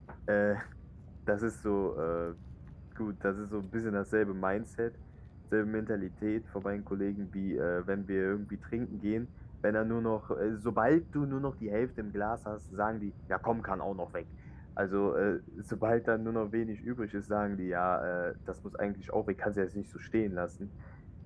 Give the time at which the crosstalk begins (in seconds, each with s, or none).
none